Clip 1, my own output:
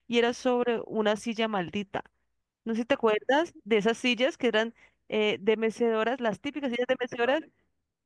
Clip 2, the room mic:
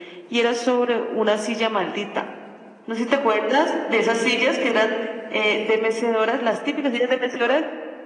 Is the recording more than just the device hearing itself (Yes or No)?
No